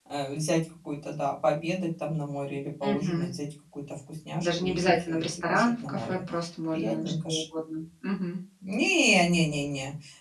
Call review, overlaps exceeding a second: present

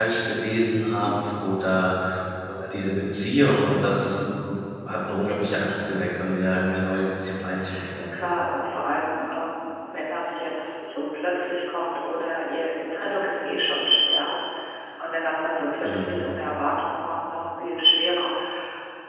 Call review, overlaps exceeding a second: none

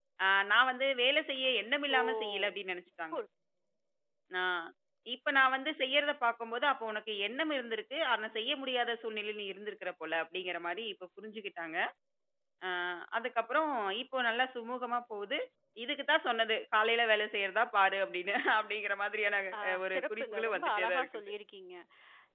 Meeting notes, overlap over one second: present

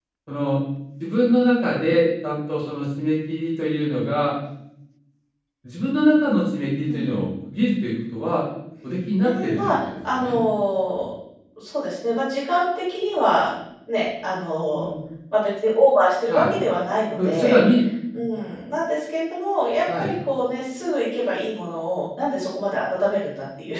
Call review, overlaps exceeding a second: present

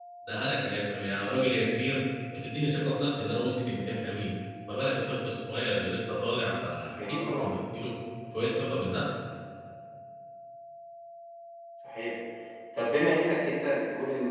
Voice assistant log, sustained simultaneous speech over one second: none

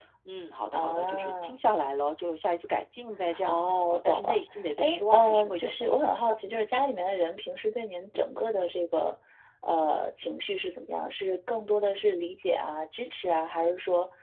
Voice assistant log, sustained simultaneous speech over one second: present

